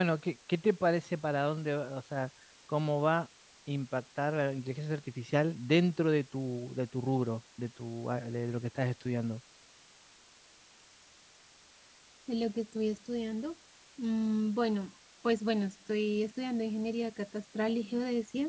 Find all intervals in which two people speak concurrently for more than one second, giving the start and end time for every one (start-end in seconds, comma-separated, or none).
none